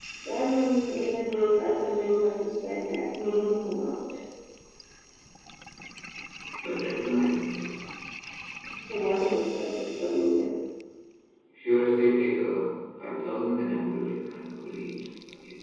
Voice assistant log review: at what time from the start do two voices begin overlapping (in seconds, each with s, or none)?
none